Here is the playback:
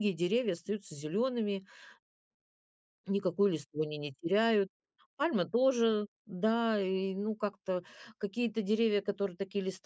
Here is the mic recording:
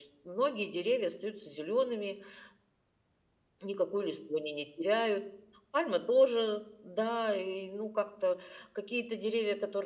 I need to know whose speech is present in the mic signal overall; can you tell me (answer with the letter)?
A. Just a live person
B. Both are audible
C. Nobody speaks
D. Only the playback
D